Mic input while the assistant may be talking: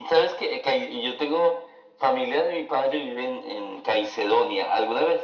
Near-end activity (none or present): none